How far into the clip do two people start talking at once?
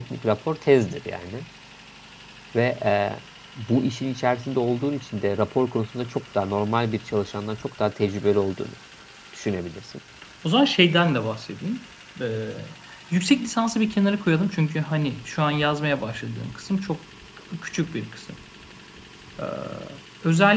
none

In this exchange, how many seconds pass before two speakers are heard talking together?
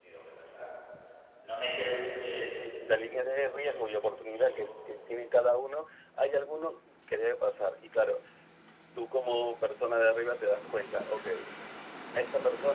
2 s

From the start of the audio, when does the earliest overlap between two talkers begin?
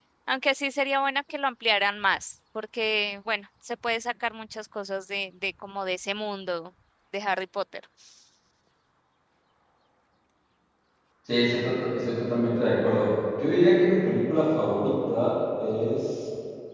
none

